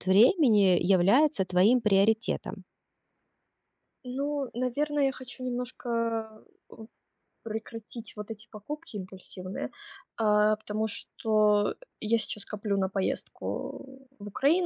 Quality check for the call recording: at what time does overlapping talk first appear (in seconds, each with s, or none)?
none